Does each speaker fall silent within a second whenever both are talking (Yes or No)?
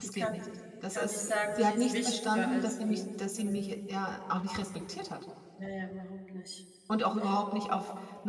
No